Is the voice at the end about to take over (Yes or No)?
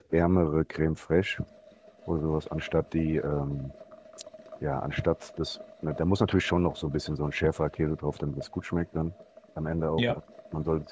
No